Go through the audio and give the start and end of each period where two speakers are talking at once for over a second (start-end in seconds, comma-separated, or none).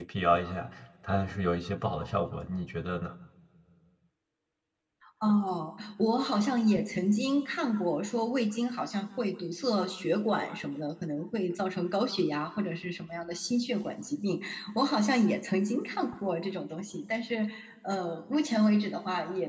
none